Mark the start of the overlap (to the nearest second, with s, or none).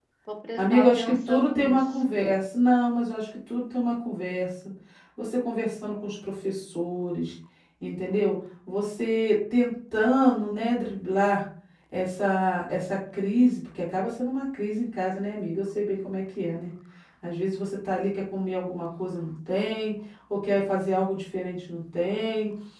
1 s